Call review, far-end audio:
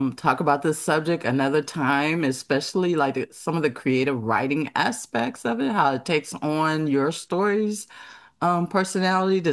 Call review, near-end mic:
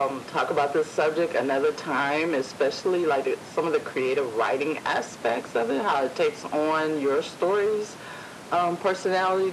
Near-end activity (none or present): none